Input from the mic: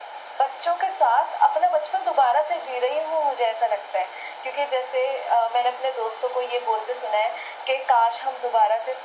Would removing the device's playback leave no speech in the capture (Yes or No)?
Yes